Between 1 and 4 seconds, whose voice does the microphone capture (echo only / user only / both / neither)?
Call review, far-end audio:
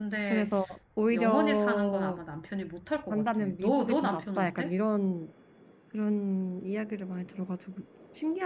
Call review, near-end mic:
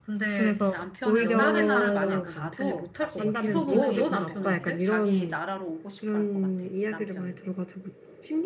both